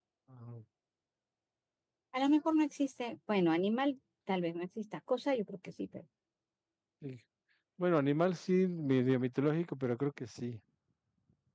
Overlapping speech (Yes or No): No